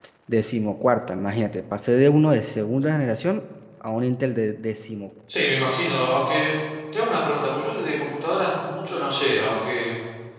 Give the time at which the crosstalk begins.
none

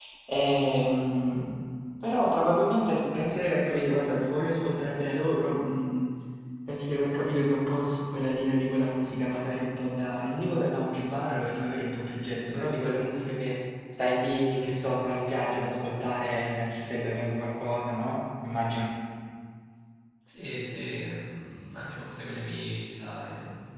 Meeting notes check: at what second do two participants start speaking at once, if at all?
none

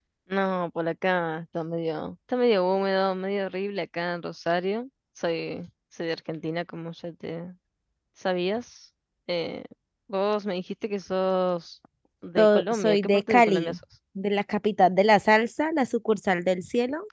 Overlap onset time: 12.4 s

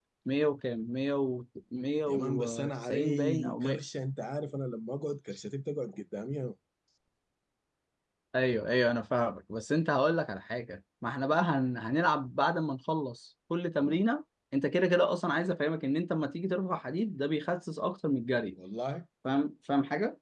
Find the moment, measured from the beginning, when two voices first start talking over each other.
2.1 s

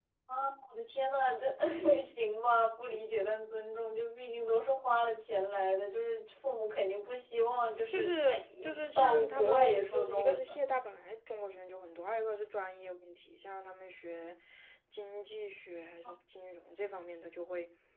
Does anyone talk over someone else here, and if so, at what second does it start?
7.9 s

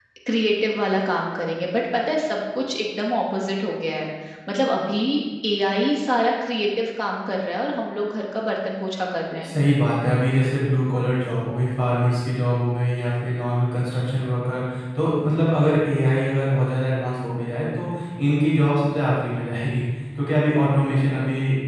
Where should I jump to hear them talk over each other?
none

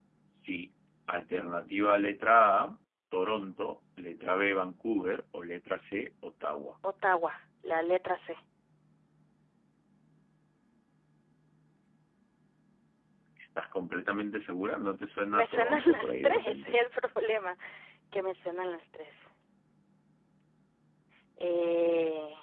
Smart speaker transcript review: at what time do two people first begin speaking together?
15.3 s

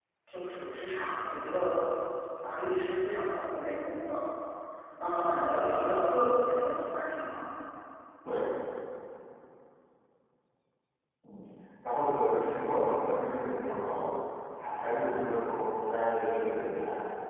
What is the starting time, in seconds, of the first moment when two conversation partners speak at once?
none

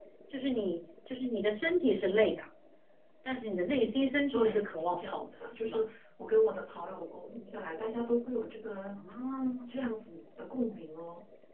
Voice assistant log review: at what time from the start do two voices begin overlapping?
4.3 s

